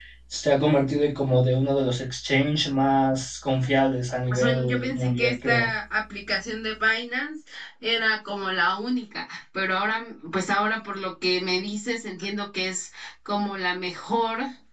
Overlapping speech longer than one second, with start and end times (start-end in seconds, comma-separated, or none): 4.3-5.7